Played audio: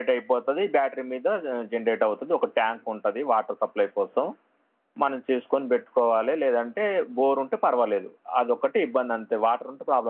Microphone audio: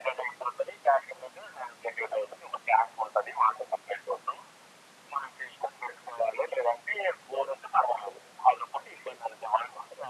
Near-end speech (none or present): none